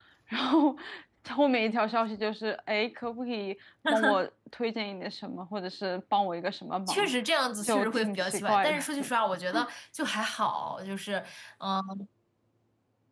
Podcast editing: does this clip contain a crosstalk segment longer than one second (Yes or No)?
Yes